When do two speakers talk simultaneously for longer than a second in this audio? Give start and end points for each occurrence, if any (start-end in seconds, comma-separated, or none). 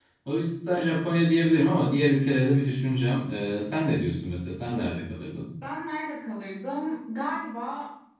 none